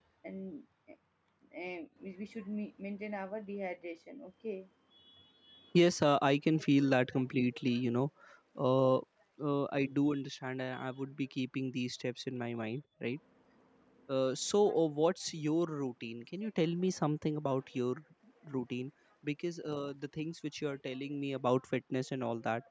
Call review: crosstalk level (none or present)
none